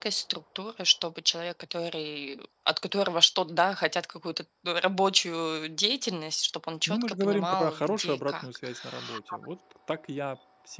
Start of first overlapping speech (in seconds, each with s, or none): 6.9 s